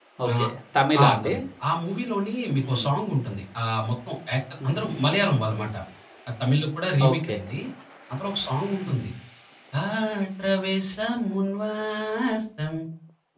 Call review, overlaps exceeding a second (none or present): none